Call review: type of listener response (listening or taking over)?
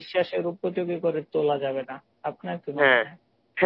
taking over